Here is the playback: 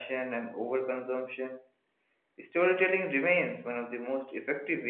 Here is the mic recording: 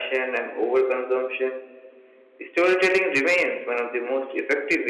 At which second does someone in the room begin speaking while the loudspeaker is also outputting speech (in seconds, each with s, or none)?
none